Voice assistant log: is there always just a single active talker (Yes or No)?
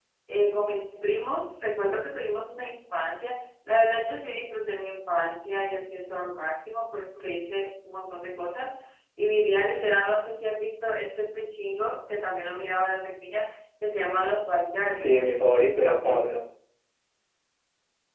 No